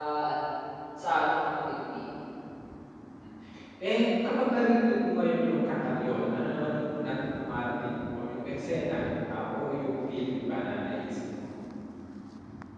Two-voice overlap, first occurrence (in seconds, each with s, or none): none